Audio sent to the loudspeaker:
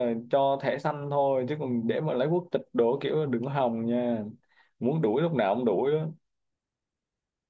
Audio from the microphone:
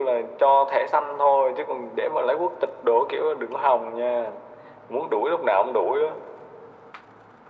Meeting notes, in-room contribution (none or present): none